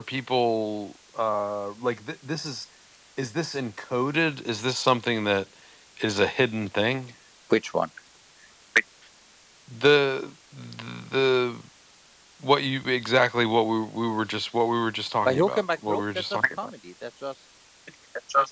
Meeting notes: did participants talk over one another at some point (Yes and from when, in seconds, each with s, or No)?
Yes, from 15.2 s